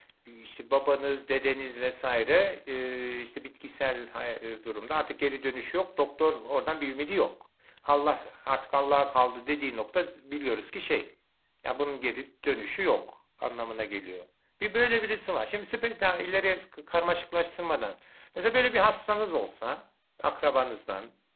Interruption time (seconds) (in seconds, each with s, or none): none